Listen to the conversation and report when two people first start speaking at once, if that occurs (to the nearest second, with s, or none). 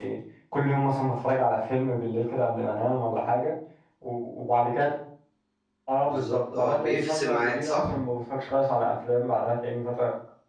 6 s